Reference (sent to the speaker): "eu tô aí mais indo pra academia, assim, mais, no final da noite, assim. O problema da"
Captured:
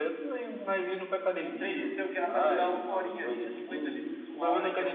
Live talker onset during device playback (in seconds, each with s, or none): 1.4 s